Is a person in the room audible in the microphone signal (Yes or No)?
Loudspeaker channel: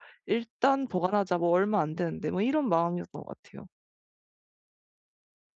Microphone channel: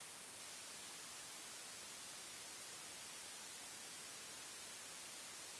No